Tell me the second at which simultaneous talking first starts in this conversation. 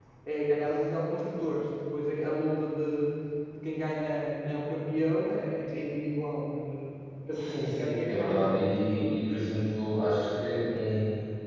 7 s

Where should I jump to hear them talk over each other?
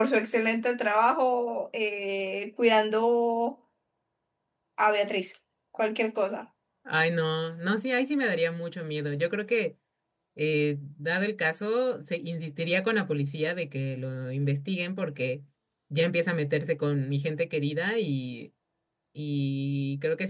none

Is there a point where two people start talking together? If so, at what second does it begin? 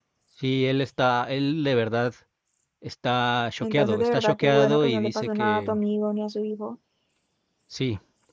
4 s

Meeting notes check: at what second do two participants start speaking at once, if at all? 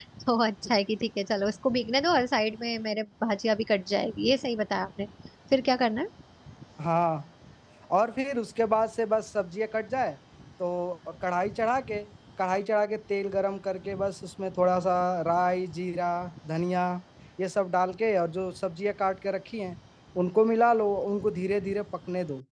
none

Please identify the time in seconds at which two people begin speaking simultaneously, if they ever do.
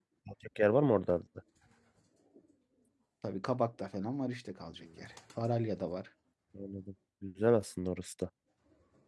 none

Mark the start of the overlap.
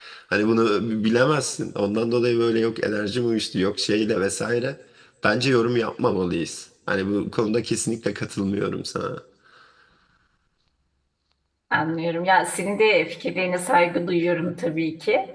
none

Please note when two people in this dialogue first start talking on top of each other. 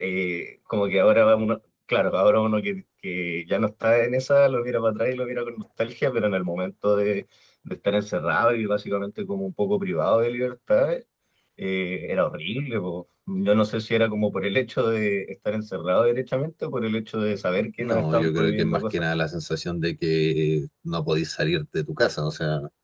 18 s

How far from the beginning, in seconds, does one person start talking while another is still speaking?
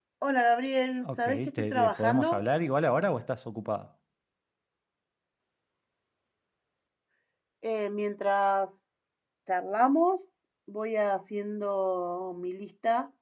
1 s

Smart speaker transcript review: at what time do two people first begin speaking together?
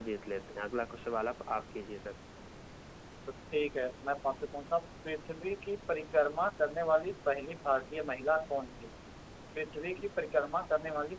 none

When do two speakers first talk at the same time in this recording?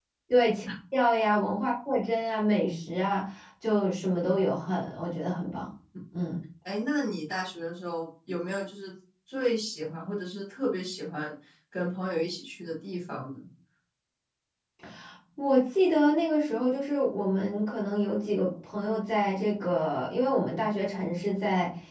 none

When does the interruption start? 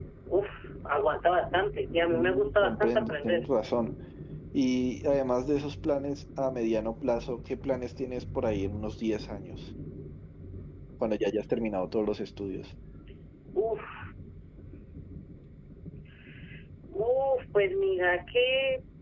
2 s

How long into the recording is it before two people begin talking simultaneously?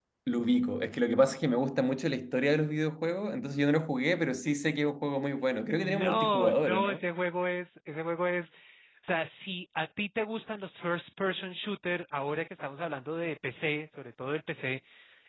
6 s

